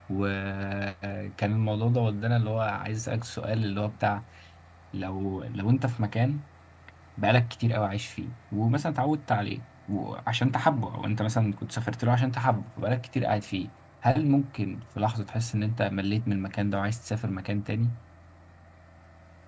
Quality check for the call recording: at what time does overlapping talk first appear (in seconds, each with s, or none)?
none